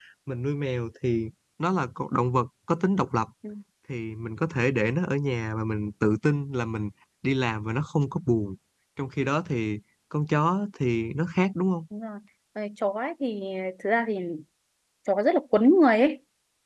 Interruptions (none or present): none